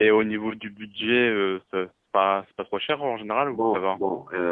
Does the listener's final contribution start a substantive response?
Yes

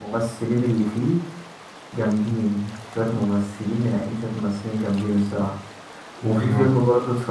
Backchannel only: Yes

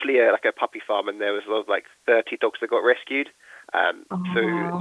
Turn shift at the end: No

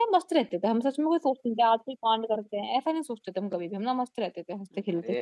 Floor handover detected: Yes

